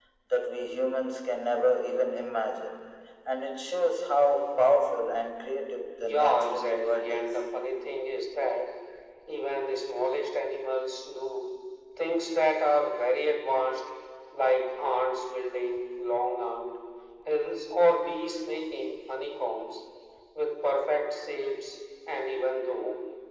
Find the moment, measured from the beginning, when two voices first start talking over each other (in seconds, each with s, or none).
6.0 s